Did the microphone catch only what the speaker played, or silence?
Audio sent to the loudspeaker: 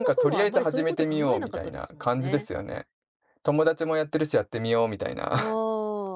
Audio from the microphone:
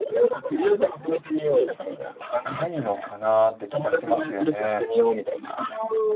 No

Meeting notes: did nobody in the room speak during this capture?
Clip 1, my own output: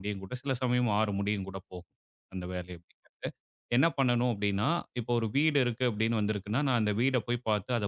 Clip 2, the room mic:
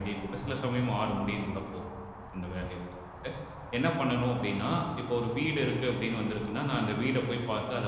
Yes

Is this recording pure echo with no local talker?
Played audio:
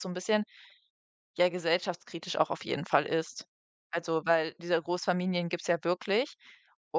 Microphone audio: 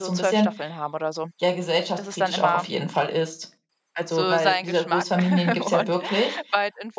No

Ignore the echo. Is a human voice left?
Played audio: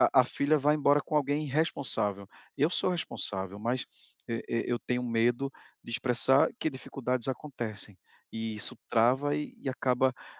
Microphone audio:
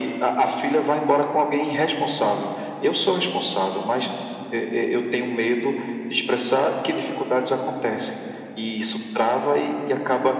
No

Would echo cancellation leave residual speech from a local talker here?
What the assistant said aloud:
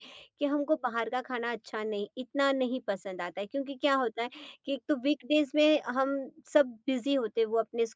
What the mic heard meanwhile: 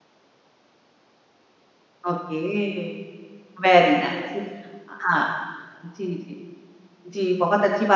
Yes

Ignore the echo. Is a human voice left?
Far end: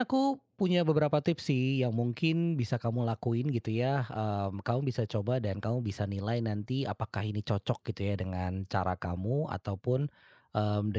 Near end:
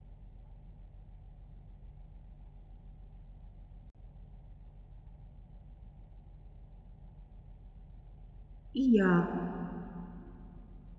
Yes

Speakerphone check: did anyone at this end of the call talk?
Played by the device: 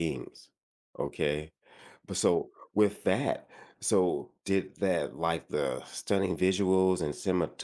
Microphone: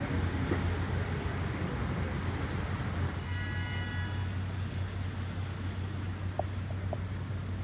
No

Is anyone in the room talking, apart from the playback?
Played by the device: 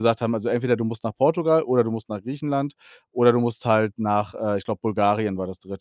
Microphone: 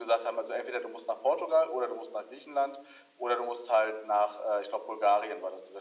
No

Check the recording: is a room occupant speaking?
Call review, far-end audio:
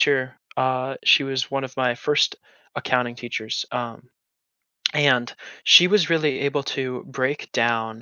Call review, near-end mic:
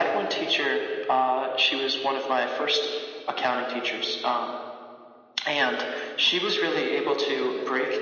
No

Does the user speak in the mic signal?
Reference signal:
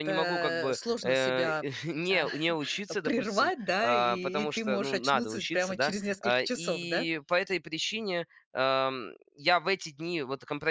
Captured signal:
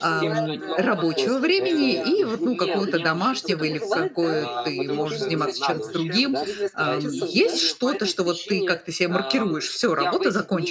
Yes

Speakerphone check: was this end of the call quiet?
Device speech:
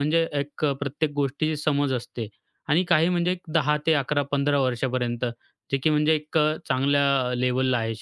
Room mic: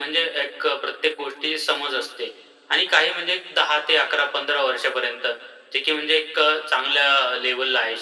Yes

